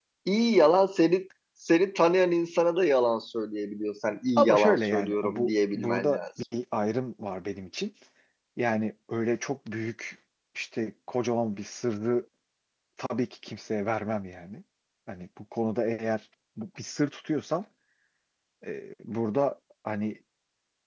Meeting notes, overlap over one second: present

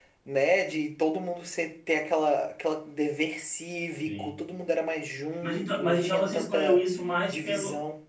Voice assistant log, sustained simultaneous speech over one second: present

